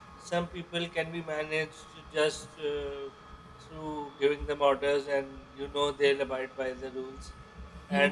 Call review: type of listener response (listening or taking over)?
listening